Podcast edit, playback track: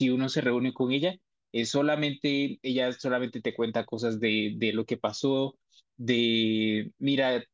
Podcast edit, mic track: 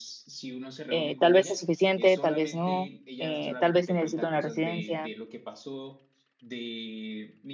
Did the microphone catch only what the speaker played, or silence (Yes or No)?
No